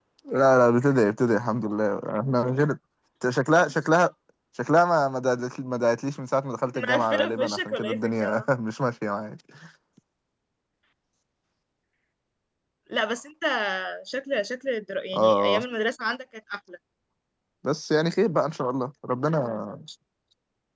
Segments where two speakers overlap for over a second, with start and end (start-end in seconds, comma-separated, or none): 6.7-8.4